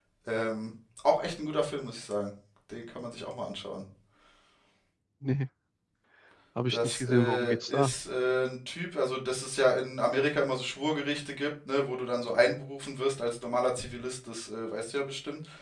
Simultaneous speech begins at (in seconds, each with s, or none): 6.7 s